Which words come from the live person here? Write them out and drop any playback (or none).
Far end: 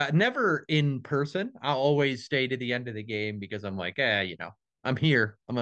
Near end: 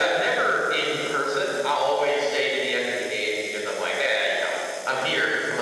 none